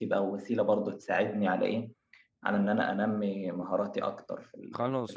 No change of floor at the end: No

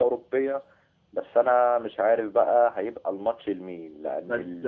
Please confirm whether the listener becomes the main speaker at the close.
No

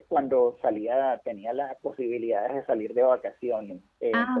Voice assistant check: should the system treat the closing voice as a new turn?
No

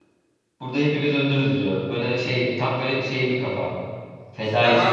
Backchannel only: No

